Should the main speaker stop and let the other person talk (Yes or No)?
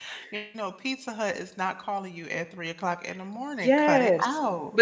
Yes